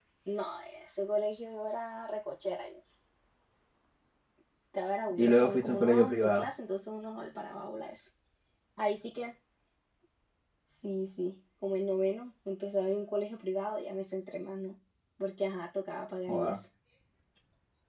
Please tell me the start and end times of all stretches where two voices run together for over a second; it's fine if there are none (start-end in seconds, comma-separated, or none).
5.2-6.5